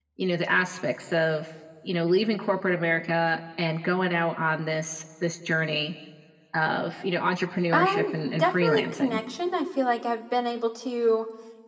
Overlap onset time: 7.7 s

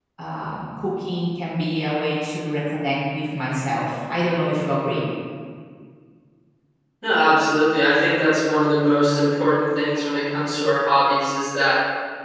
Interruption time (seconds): none

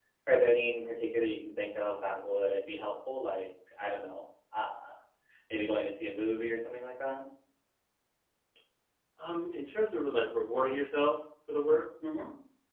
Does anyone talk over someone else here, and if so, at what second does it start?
none

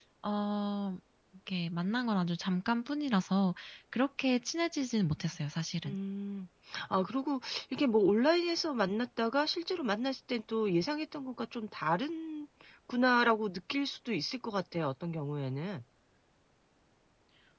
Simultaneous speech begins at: none

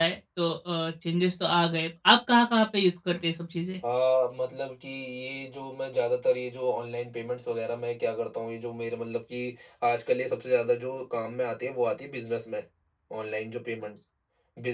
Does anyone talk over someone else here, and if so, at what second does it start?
none

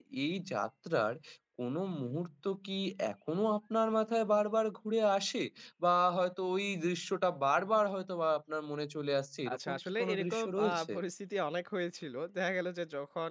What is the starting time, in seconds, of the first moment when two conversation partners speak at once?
9.5 s

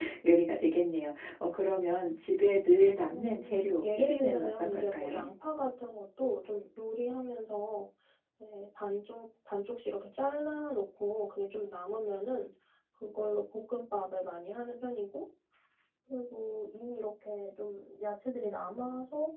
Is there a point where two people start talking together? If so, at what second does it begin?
3.1 s

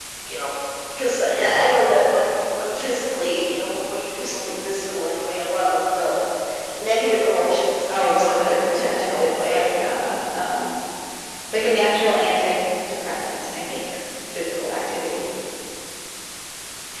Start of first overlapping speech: 7.9 s

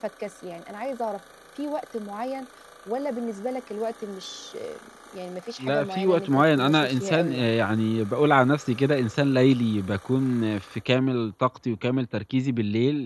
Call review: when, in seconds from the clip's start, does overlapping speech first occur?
5.6 s

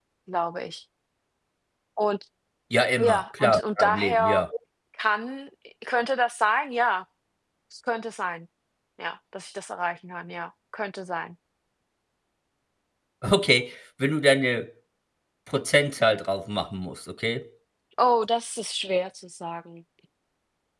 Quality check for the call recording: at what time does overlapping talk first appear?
3.0 s

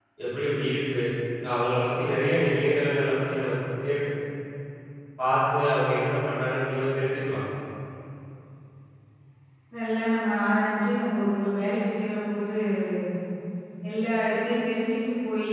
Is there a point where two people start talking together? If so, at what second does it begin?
none

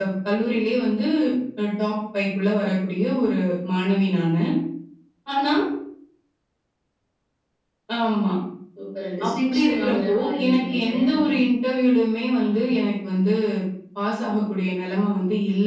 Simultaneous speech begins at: 9.2 s

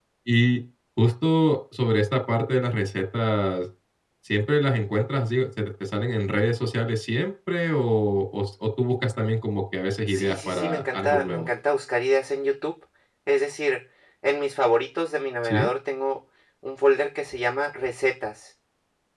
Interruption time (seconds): 10.1 s

